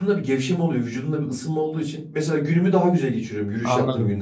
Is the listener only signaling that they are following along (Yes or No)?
No